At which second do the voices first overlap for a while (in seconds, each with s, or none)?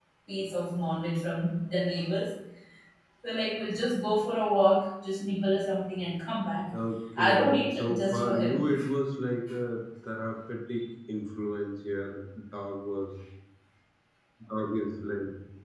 7.2 s